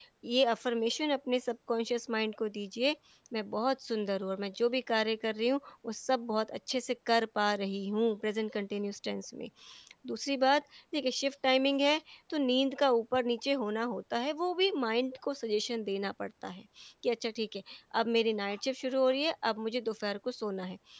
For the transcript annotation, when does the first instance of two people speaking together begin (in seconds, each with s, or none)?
none